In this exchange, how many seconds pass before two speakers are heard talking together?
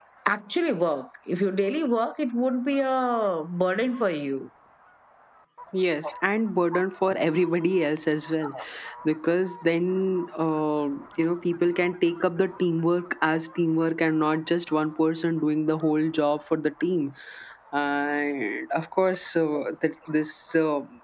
none

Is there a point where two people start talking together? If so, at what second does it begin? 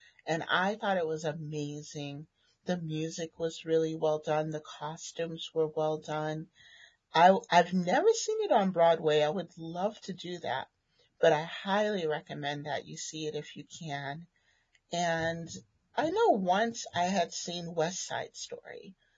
none

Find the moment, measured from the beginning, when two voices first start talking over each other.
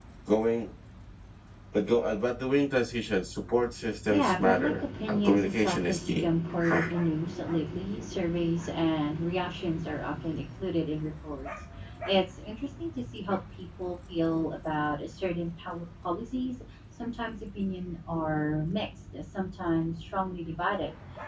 4 s

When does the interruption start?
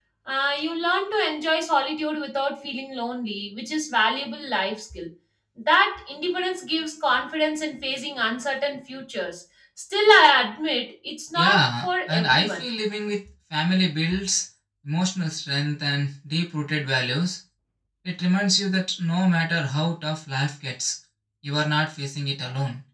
11 s

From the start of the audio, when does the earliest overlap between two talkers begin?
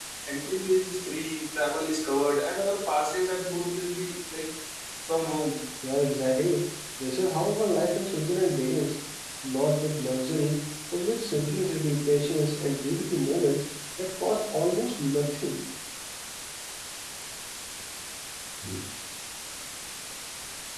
none

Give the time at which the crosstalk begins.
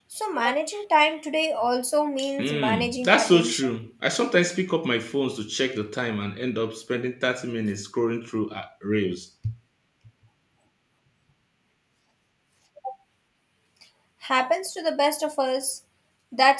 2 s

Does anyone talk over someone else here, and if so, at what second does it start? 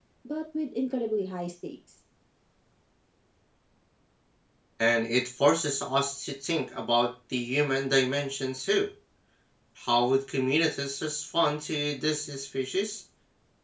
none

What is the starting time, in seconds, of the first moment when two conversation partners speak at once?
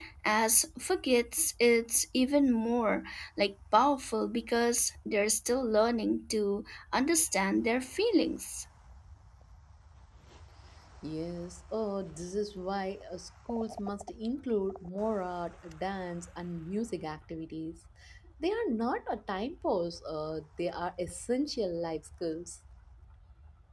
none

